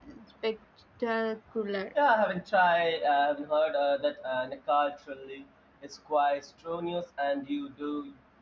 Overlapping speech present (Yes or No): No